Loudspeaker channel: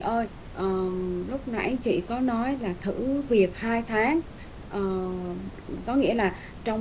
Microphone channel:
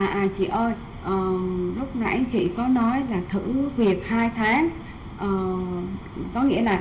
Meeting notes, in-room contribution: none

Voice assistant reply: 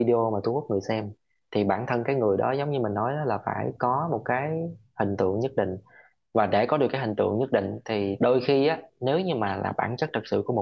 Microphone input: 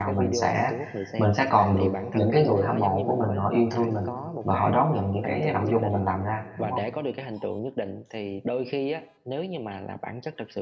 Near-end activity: present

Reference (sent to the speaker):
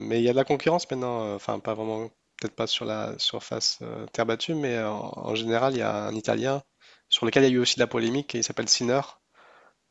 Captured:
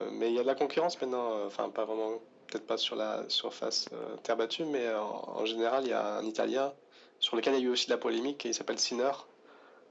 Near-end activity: none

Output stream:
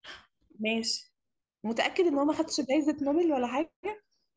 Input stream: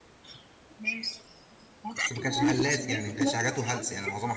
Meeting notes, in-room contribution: present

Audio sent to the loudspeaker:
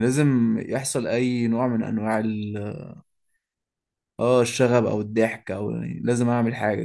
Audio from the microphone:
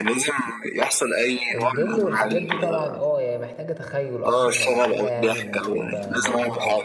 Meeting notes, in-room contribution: present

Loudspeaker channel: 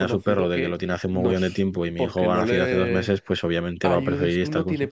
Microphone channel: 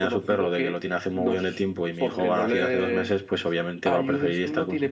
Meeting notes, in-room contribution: present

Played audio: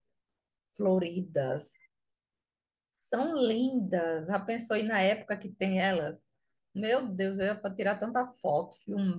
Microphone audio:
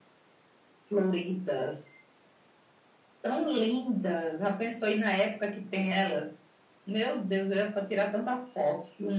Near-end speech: none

